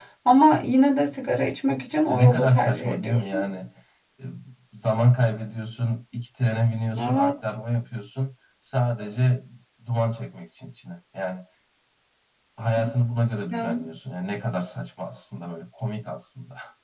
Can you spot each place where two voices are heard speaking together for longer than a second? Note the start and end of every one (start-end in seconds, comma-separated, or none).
2.1-3.4